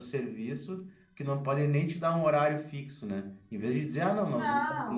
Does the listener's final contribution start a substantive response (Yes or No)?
No